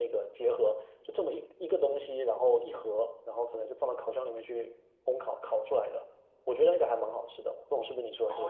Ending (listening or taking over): taking over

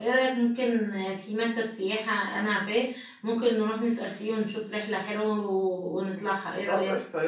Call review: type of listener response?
taking over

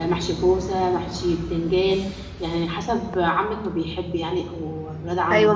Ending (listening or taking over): taking over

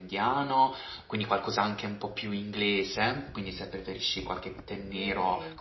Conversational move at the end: listening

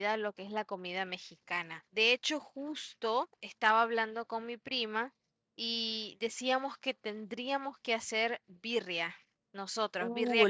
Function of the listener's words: taking over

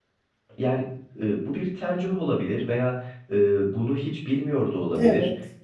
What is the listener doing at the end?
listening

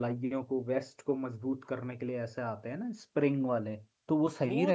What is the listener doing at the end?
taking over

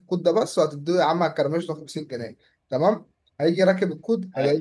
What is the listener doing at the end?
listening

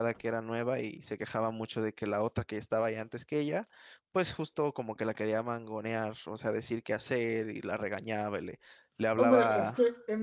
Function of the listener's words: taking over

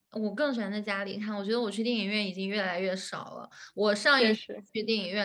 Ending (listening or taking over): listening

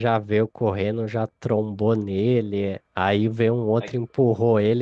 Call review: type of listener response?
listening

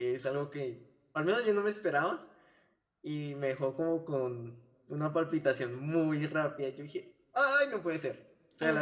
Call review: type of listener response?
listening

